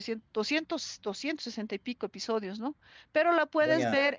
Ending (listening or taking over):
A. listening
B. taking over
A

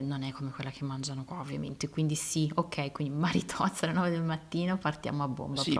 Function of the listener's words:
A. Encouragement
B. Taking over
B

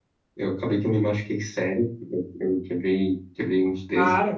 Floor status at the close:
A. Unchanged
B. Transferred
A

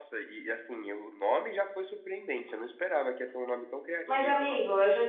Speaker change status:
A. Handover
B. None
A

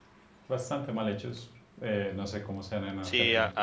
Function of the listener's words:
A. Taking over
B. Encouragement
A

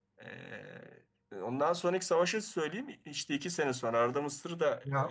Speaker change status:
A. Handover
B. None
A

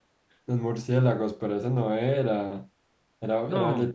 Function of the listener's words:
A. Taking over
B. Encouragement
B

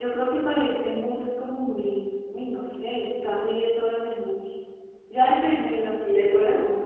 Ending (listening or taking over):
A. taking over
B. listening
B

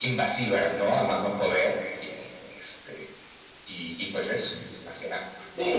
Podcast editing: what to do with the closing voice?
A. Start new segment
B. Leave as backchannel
A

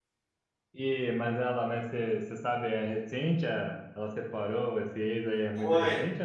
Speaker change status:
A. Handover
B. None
A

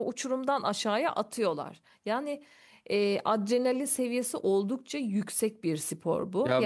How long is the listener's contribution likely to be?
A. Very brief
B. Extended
A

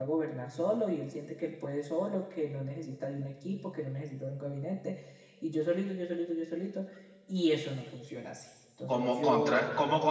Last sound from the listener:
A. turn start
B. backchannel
A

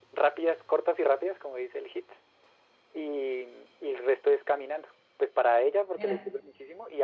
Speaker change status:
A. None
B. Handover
A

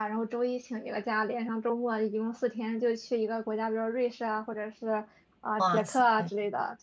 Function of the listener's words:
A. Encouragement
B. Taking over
A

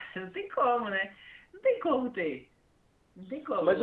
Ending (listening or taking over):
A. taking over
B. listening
A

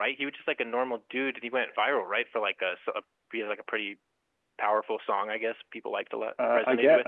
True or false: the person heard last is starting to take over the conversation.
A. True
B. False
A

